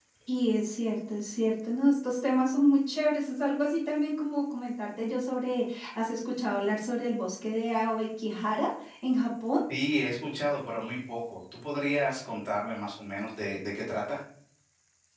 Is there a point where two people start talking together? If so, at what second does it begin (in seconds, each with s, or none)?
none